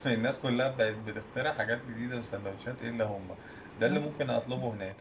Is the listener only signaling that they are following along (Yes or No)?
Yes